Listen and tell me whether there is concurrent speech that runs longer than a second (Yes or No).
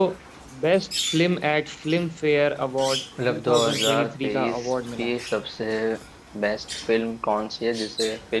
Yes